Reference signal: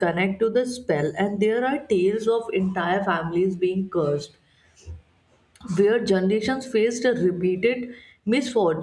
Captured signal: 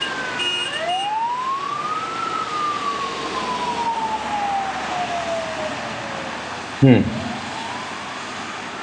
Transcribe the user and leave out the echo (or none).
Hmm.